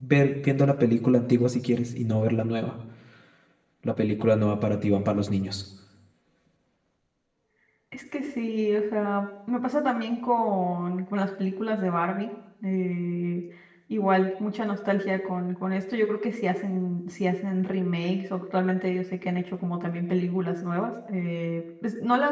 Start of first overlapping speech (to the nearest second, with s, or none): none